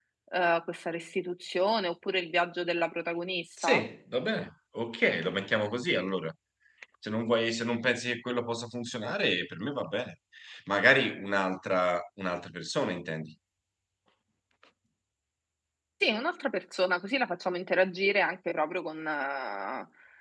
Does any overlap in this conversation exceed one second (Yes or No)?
No